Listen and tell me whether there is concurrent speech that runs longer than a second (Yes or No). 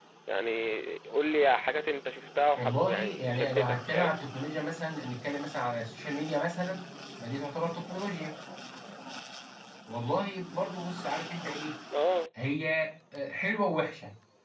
Yes